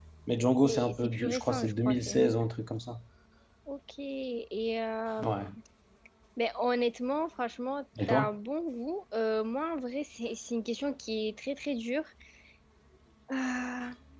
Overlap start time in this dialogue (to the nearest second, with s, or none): 1 s